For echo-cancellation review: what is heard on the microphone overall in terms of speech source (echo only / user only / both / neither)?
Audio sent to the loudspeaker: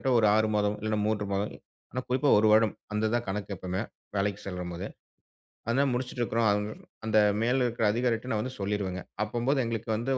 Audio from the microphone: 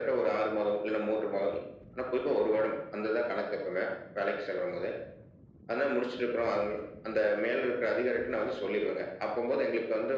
echo only